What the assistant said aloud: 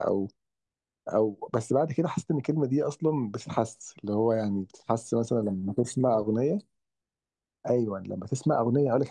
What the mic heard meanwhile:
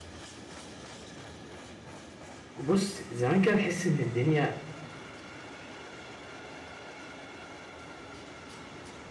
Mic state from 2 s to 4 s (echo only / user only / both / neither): user only